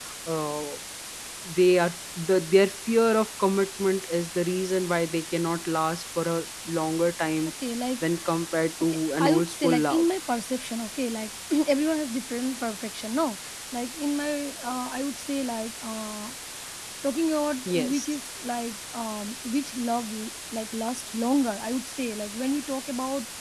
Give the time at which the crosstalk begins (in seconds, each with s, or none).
8.8 s